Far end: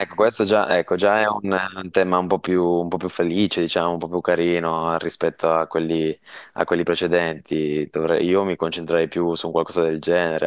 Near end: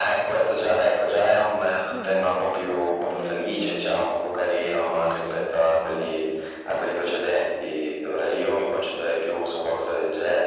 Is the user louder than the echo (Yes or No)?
No